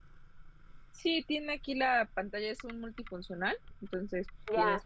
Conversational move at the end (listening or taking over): taking over